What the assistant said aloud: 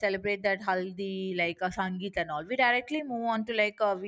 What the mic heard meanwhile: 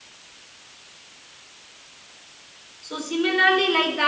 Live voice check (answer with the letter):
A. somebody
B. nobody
A